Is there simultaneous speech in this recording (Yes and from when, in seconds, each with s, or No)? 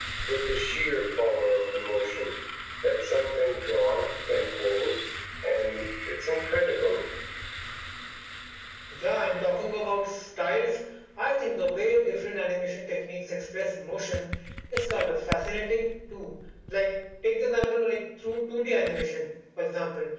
No